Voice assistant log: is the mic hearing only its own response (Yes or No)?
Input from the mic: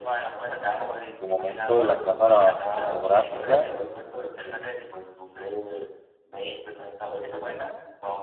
No